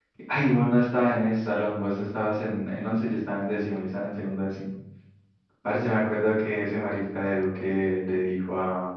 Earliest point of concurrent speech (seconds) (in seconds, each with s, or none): none